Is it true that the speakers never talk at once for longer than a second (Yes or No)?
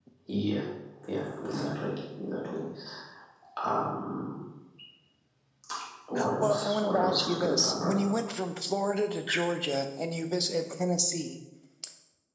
No